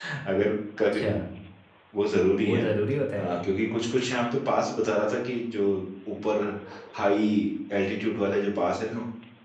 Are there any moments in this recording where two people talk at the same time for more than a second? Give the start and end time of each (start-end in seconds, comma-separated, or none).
none